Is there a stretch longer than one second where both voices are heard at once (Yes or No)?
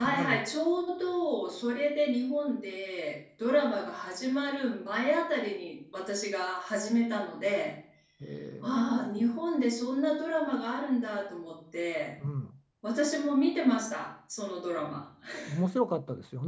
No